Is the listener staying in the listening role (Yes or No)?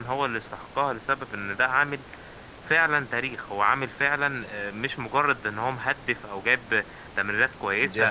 No